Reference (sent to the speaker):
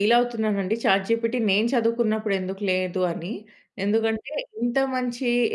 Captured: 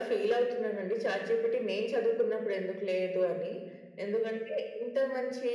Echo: present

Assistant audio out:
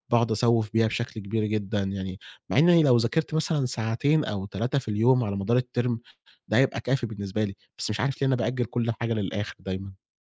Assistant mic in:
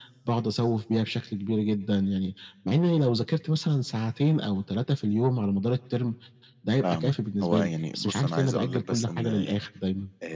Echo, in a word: present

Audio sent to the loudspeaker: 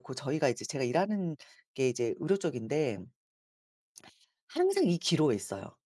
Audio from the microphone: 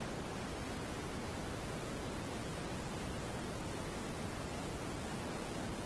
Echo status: none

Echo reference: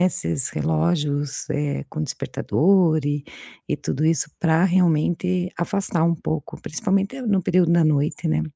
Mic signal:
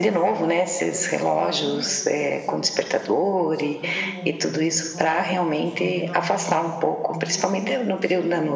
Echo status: present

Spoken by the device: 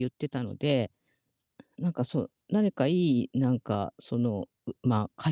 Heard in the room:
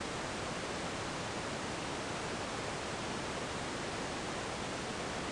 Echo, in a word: none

